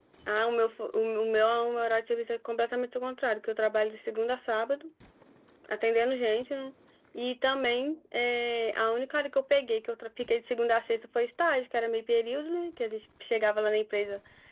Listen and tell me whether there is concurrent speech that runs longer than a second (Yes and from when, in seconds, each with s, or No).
No